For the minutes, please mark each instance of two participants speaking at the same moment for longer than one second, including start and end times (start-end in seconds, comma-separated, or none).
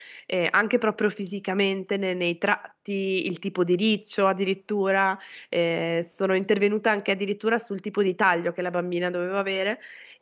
none